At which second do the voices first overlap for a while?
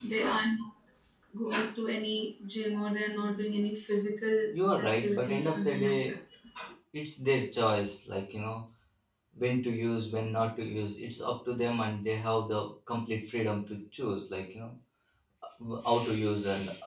4.9 s

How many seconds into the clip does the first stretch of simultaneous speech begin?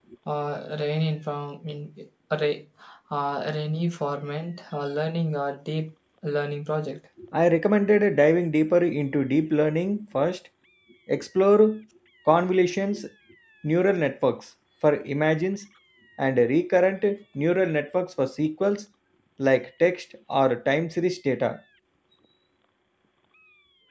none

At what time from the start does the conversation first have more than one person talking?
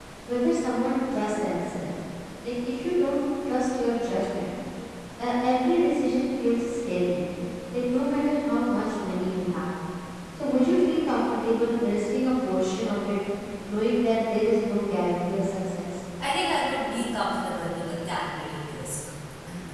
none

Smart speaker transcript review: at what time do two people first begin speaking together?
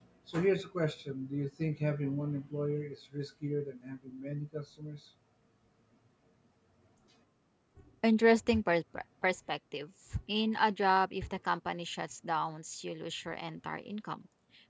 none

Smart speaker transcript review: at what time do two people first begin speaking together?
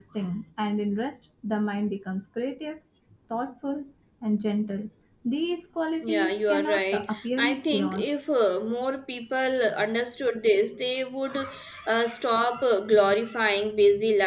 6.0 s

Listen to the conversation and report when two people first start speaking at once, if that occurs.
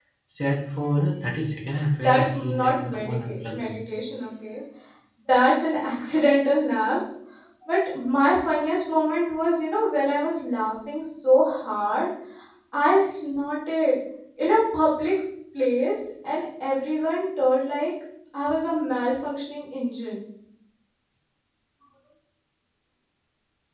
2.0 s

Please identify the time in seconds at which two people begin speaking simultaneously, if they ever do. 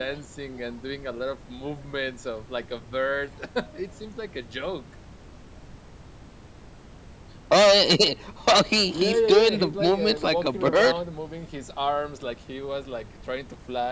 8.8 s

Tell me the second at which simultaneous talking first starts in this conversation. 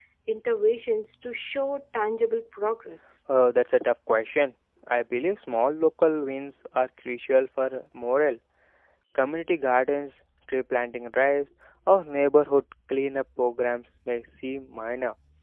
none

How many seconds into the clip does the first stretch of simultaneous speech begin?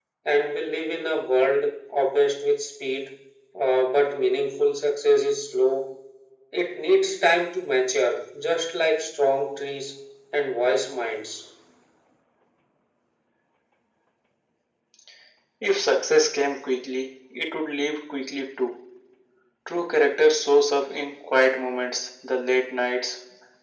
none

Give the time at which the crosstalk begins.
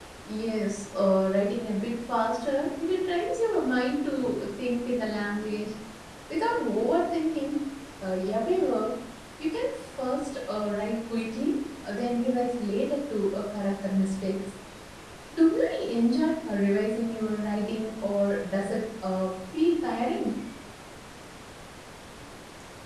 none

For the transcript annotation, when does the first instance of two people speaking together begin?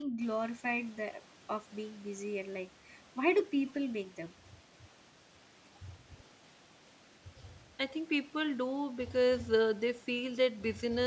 none

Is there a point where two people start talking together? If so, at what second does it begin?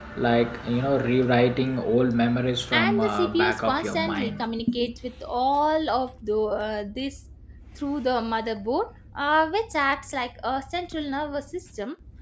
2.7 s

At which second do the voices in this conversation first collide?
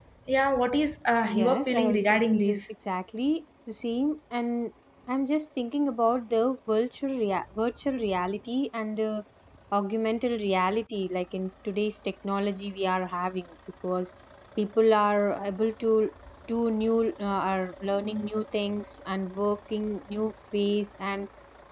1.3 s

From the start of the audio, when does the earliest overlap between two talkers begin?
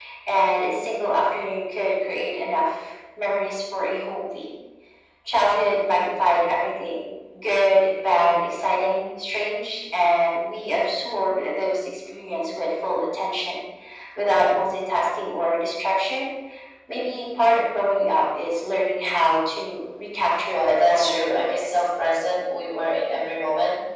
20.5 s

